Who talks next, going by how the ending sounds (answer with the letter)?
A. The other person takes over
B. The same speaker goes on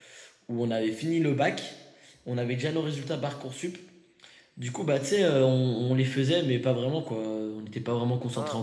A